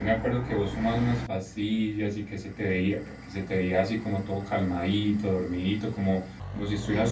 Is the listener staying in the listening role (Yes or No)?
Yes